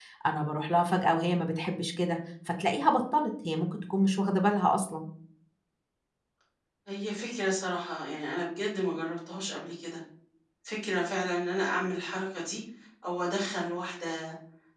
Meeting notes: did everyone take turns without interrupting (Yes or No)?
Yes